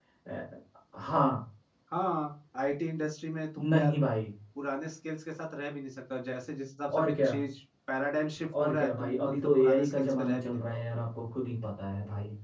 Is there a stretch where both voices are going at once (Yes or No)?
Yes